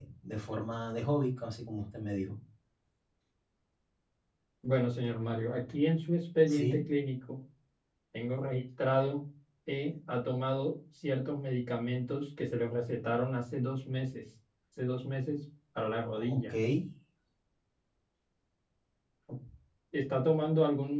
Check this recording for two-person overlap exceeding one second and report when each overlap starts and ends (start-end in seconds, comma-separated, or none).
none